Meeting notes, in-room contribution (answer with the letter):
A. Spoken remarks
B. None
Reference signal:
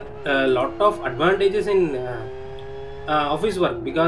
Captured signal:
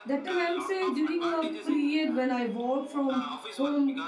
A